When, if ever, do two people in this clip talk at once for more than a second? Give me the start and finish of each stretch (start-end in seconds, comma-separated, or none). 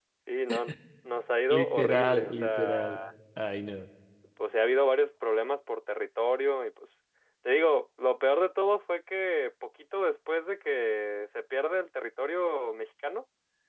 1.5-2.9